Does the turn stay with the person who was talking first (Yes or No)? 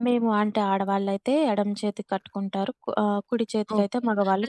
No